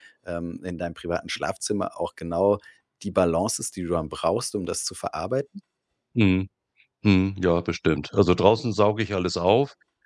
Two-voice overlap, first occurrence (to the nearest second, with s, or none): none